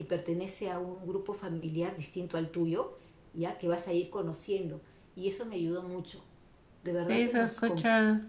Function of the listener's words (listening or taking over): taking over